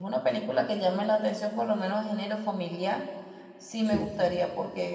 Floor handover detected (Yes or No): No